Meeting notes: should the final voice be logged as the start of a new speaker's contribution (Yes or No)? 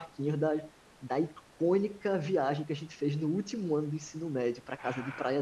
Yes